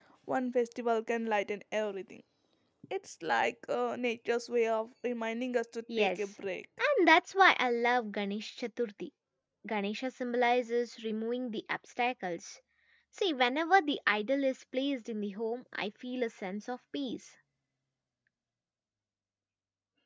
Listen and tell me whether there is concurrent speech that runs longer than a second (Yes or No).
No